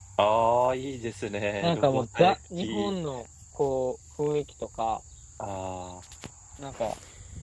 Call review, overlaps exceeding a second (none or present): present